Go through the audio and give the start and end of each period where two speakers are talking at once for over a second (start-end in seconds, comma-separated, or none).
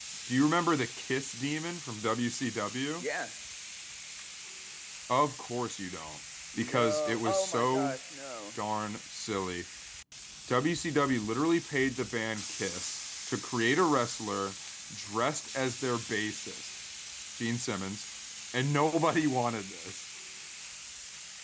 6.6-8.0